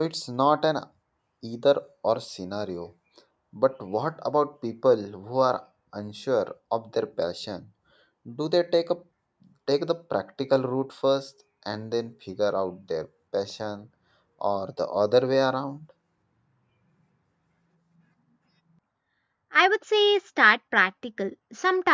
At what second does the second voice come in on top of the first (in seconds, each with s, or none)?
none